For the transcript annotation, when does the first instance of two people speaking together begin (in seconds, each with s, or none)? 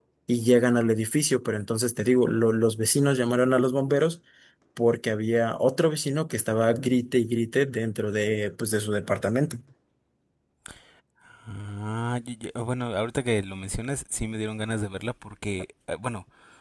none